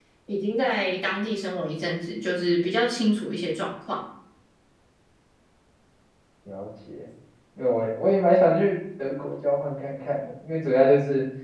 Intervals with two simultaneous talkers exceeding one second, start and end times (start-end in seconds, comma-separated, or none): none